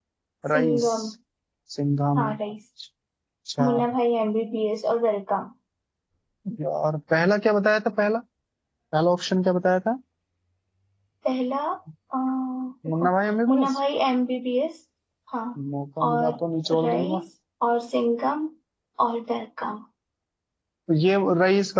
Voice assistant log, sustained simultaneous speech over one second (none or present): none